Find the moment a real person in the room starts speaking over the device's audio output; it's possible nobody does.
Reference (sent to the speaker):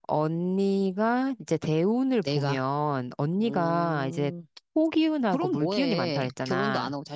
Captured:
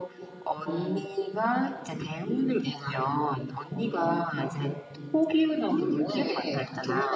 0.6 s

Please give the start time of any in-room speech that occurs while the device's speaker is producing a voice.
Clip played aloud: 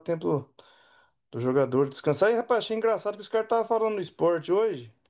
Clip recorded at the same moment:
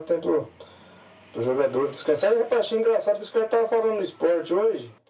none

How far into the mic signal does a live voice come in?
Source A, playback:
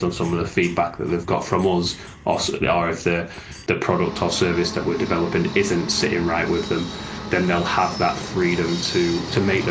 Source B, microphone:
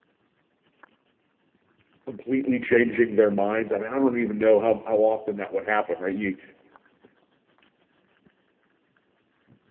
2.1 s

